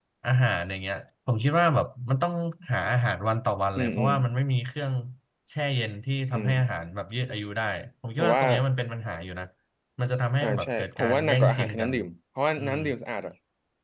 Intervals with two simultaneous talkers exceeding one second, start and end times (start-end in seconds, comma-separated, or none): 10.4-11.9